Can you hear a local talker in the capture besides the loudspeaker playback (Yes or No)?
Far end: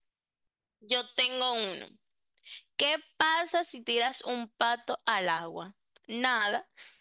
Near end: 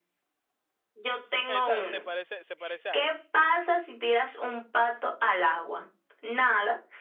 Yes